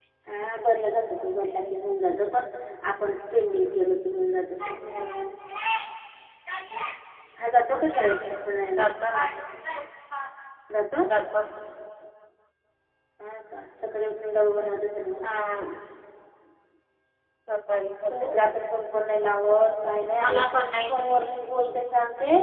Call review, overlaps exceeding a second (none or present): none